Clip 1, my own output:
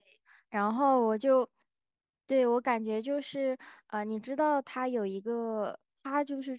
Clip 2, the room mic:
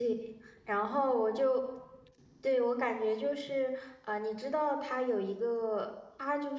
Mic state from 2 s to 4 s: echo only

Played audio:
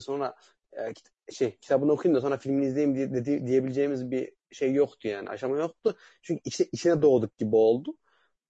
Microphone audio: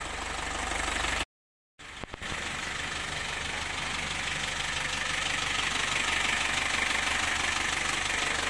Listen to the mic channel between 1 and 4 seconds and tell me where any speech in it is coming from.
neither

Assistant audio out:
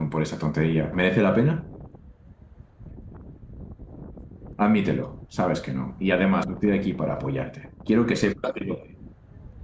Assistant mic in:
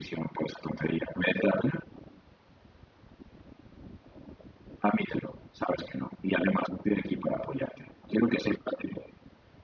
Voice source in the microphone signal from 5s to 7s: echo only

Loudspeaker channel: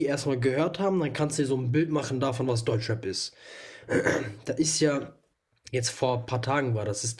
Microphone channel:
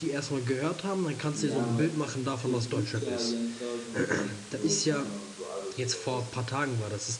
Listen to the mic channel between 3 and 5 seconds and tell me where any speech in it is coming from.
both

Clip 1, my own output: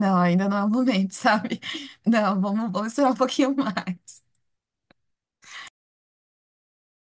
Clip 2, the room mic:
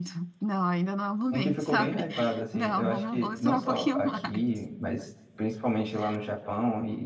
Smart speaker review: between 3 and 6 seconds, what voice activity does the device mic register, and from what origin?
both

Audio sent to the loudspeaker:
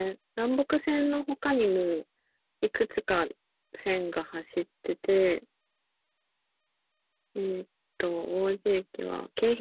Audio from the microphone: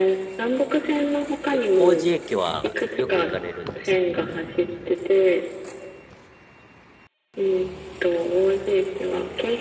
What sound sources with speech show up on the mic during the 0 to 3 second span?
both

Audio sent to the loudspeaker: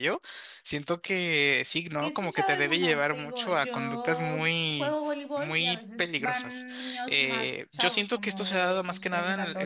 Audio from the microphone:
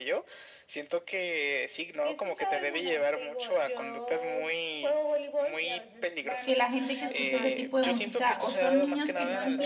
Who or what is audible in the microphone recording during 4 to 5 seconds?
echo only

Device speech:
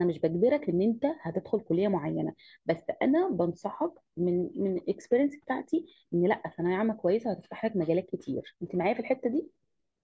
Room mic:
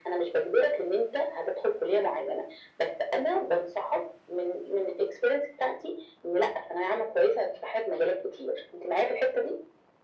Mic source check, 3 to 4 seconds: echo only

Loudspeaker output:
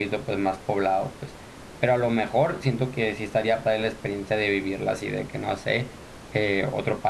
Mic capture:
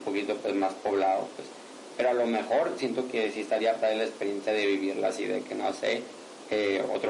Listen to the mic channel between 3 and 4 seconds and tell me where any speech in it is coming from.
echo only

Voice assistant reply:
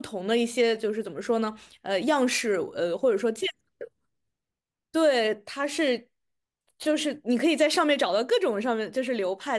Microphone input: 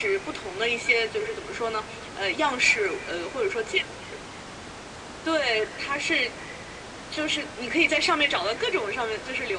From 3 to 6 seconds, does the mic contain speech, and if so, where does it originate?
echo only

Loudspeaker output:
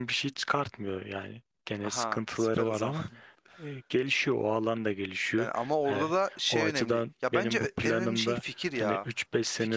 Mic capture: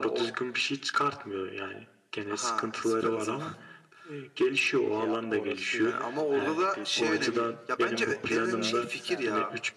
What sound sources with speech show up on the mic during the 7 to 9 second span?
both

